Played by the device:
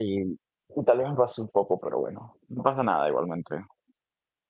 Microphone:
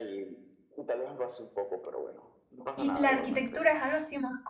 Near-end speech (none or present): present